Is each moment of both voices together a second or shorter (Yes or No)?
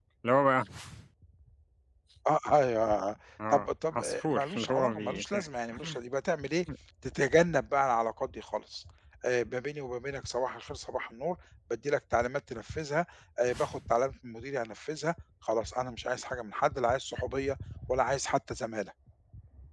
No